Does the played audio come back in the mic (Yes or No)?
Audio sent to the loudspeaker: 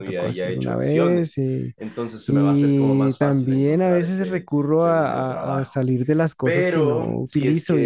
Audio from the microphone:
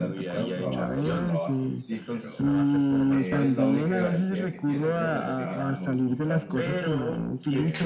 Yes